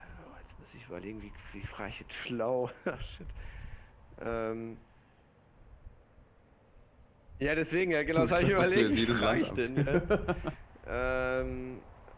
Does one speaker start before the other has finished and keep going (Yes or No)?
Yes